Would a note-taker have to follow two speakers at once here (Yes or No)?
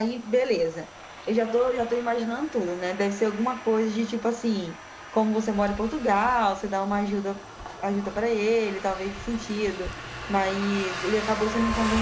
No